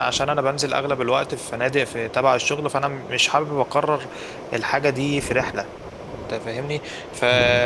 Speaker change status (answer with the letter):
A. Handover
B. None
B